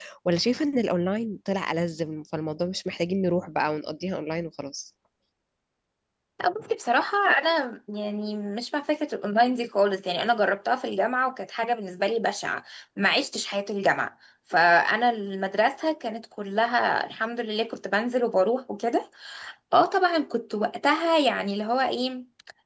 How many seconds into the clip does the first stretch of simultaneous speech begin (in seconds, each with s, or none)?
none